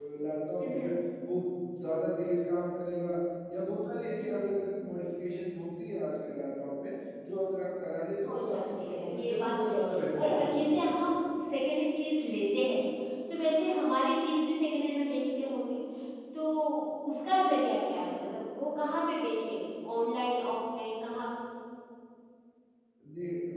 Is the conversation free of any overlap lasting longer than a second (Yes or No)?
No